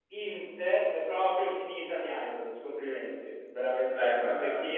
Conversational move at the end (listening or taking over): listening